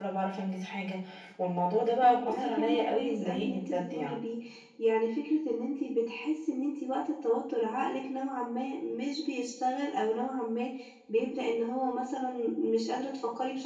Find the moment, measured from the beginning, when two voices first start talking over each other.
2.0 s

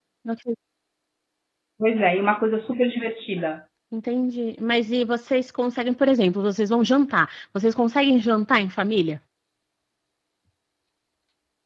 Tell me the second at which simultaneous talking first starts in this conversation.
none

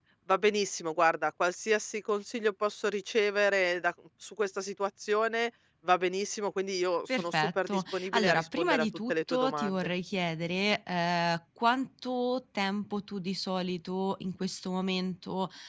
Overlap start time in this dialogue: 7.1 s

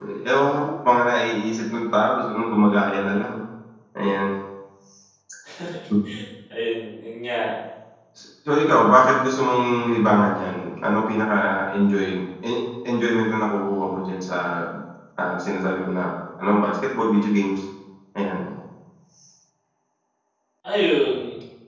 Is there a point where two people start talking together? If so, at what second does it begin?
none

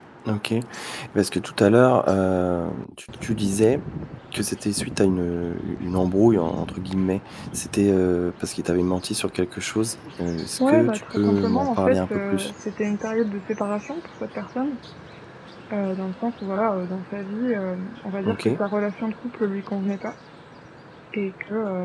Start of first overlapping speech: 10.7 s

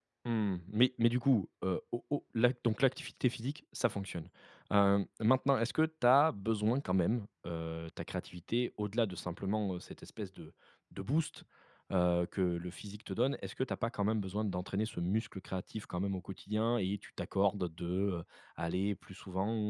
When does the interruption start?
none

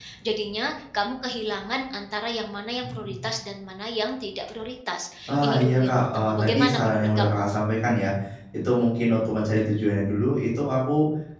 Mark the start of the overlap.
5.3 s

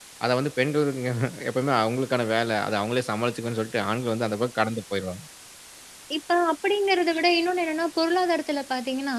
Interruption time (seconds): none

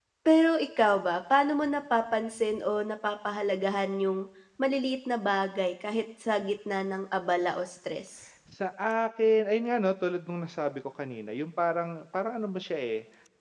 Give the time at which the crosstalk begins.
none

